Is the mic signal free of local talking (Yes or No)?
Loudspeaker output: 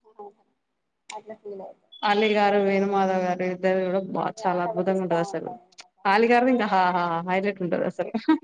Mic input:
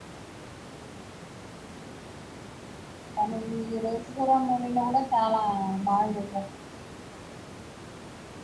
No